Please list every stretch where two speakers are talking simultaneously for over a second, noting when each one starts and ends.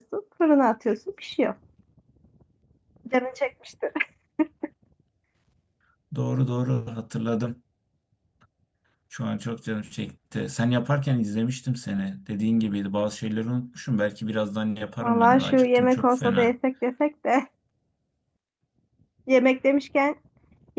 15.0-16.5

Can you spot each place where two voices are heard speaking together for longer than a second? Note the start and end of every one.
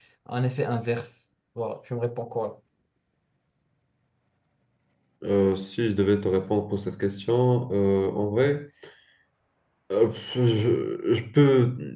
none

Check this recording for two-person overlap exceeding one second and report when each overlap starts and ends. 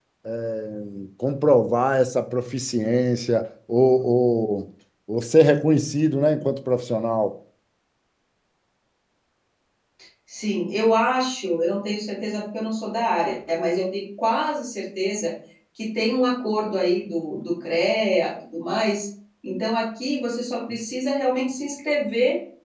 none

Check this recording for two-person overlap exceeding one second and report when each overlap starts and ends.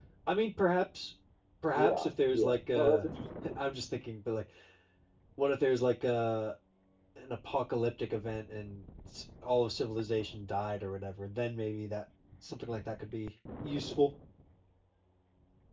1.7-3.0

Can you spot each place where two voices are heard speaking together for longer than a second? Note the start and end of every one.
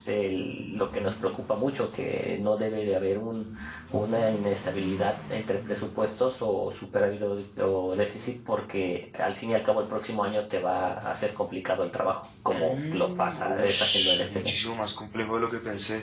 12.5-14.6

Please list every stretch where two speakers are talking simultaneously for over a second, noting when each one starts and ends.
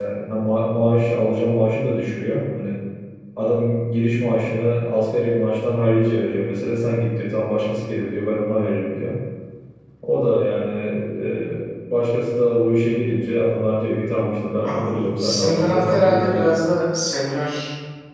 14.6-16.5

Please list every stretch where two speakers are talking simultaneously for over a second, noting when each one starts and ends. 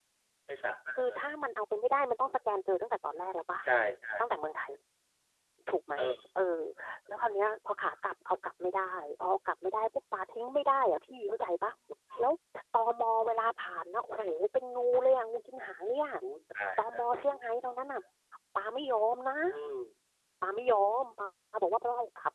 none

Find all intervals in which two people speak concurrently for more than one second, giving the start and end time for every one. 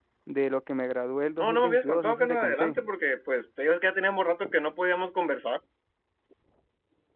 1.4-2.8

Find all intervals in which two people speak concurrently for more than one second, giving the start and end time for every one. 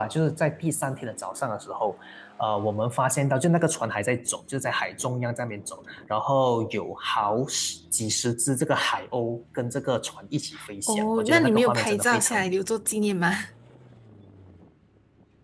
10.9-12.6

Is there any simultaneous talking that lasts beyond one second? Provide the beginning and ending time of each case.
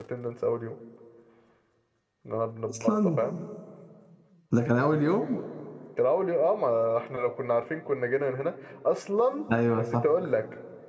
none

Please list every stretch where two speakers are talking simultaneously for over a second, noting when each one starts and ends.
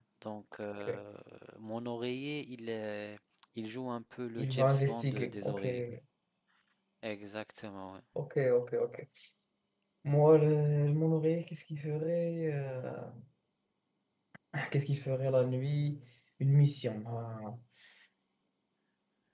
4.4-5.7

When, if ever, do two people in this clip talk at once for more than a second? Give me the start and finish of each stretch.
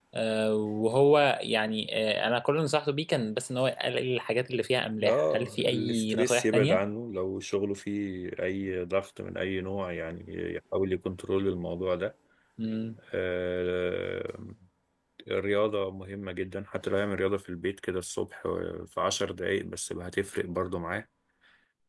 5.0-6.8

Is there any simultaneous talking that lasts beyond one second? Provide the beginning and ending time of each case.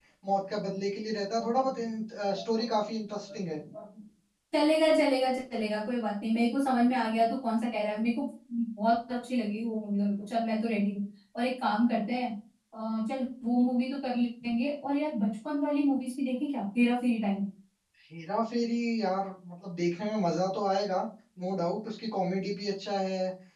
none

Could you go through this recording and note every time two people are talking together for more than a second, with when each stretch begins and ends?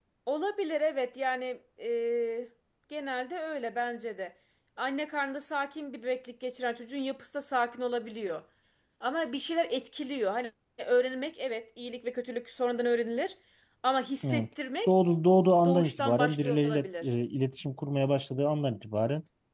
15.7-17.1

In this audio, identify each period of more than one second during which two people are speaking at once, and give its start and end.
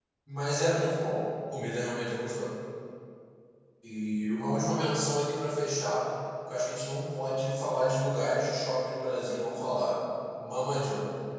none

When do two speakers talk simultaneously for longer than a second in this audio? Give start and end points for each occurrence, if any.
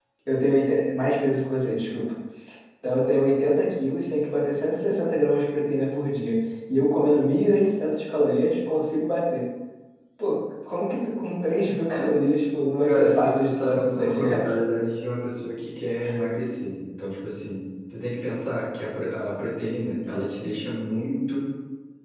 12.9-14.5

